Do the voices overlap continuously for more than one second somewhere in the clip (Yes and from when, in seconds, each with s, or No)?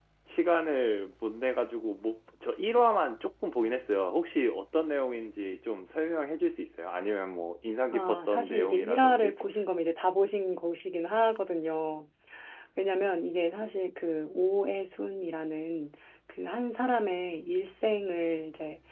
Yes, from 7.9 s